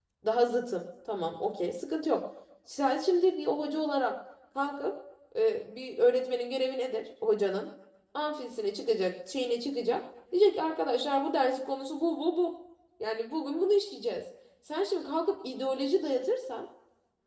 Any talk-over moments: No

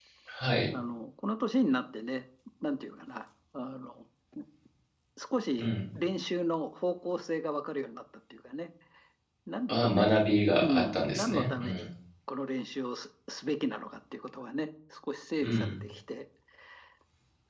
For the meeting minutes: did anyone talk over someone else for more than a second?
Yes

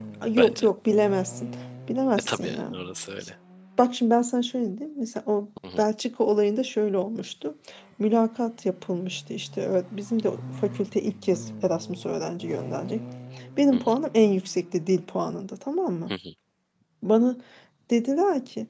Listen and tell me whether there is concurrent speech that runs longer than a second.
No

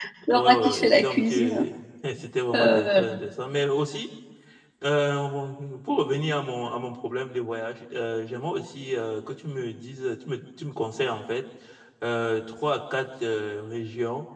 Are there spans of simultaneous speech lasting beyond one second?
Yes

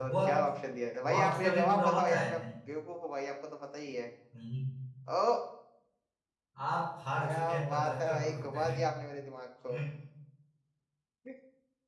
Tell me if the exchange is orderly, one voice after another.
No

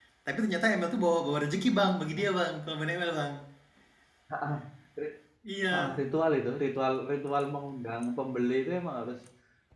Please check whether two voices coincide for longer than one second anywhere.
No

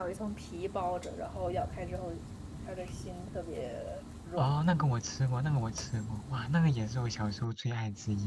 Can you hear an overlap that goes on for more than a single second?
No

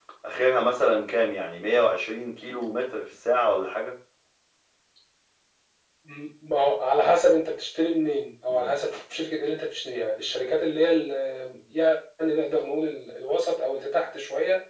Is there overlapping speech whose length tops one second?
No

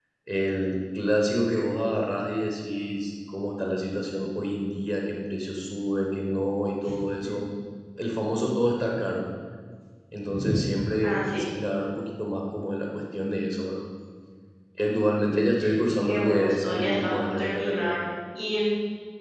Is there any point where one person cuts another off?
Yes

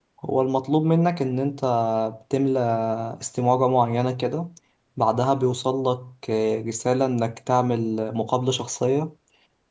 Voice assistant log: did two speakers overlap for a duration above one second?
No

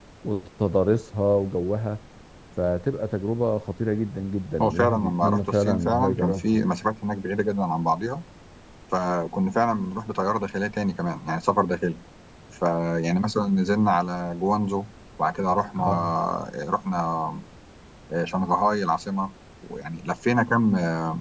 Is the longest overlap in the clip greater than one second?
Yes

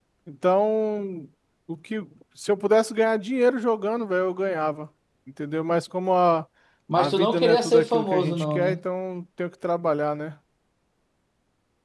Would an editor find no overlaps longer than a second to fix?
No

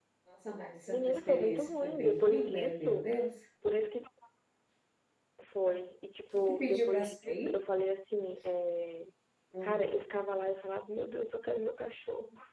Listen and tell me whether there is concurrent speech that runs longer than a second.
Yes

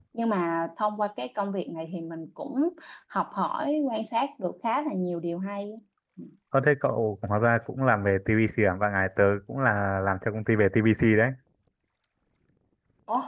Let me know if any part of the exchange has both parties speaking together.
No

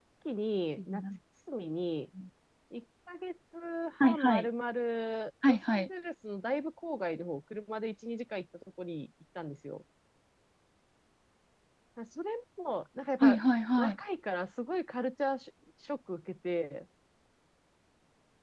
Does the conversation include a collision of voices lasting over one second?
No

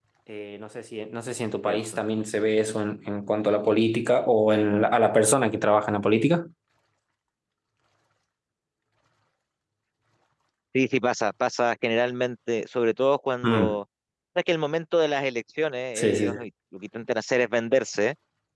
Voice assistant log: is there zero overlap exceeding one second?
Yes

